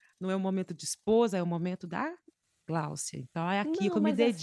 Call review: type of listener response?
taking over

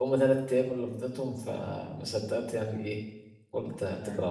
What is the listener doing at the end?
listening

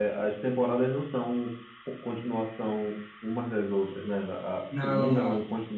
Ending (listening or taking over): listening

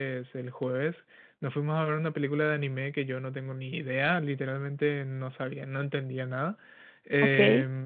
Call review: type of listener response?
listening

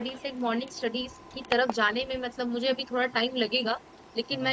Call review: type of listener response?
listening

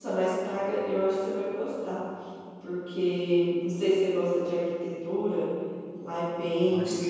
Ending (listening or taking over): listening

